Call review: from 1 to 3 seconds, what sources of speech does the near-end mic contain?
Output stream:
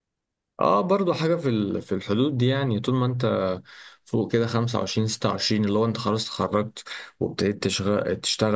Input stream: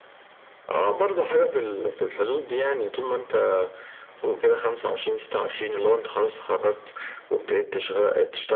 echo only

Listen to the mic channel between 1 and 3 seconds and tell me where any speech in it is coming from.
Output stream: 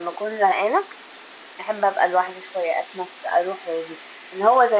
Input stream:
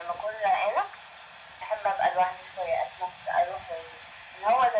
echo only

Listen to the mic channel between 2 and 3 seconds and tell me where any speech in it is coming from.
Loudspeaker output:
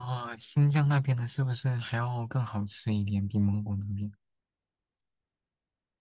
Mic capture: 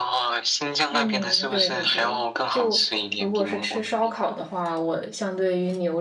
both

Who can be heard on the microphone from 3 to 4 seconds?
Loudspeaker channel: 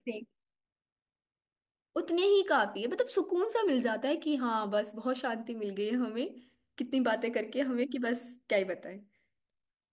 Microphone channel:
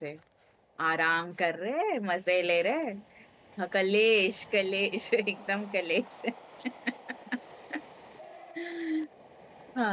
user only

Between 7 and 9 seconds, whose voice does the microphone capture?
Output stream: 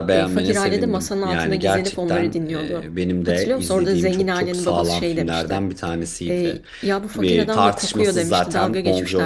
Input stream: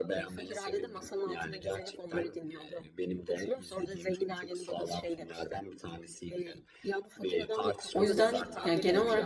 both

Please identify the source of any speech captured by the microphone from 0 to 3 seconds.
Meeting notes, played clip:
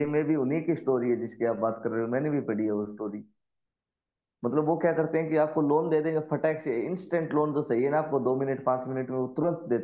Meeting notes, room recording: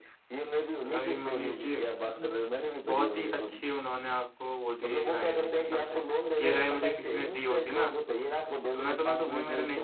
both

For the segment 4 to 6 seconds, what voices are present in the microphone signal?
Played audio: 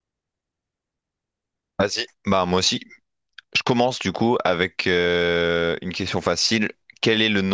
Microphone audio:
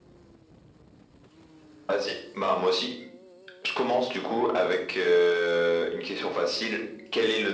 echo only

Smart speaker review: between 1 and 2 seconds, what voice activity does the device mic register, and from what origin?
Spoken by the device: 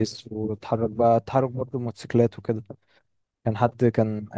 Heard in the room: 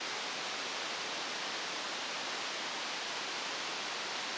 neither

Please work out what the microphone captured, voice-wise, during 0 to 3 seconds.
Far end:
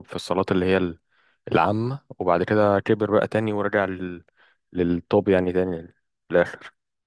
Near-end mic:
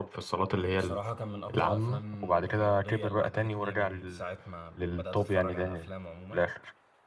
both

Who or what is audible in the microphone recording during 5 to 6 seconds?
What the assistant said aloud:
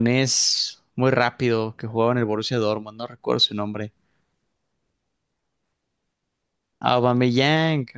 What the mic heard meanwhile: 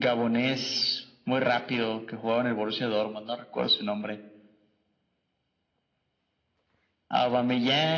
neither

